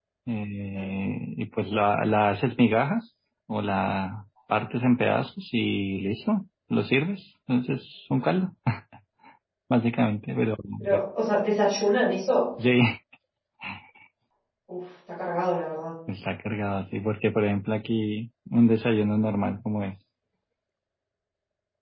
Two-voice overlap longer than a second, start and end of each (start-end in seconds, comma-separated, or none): none